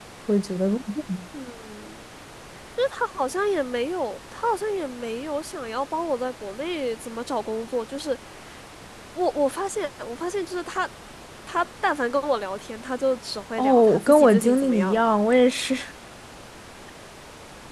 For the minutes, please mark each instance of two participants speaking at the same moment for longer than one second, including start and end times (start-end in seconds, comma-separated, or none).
13.6-15.0